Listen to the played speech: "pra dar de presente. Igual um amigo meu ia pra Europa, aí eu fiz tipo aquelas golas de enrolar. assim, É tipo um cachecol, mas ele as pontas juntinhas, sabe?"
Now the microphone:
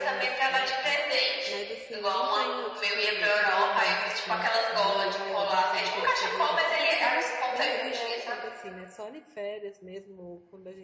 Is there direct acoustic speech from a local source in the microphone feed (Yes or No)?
Yes